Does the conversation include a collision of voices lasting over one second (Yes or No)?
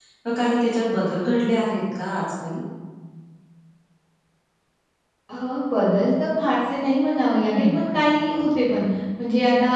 No